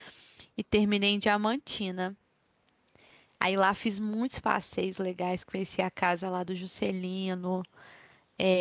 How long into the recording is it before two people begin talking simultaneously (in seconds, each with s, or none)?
none